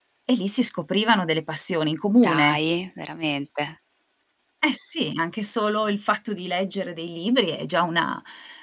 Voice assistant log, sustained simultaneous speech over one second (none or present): none